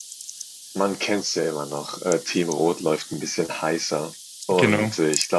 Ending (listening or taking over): listening